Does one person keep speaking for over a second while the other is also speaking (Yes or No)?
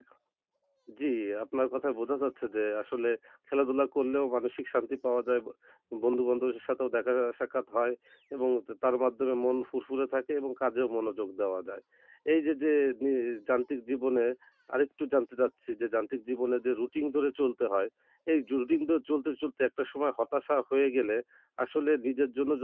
No